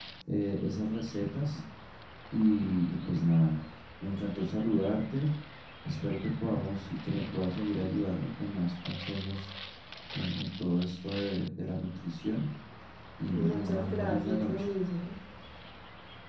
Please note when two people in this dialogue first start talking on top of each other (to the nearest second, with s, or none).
13 s